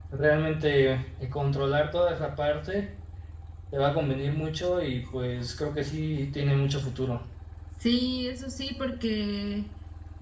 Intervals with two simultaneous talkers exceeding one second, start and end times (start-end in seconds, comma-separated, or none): none